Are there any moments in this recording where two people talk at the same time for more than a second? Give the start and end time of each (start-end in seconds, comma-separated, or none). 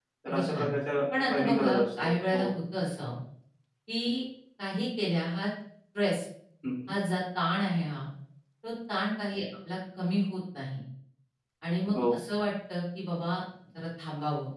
1.3-2.5